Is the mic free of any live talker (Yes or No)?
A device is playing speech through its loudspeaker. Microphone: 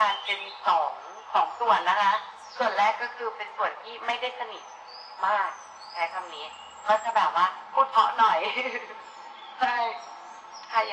Yes